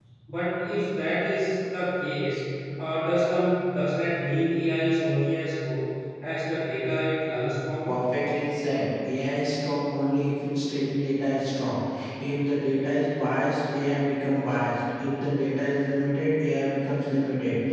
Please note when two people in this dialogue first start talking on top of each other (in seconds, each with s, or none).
none